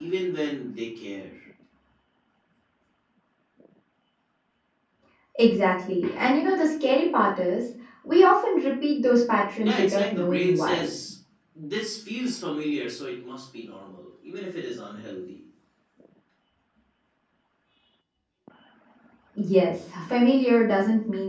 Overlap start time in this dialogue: 9.6 s

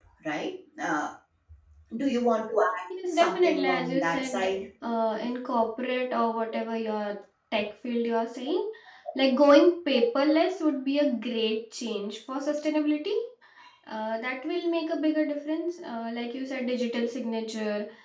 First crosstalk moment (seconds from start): 2.9 s

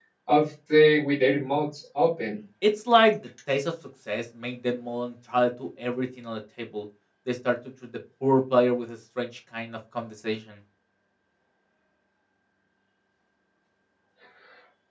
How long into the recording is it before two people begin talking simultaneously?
none

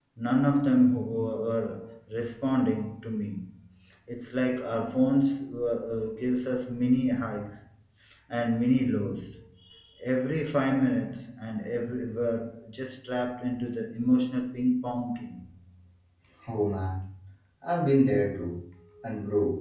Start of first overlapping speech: none

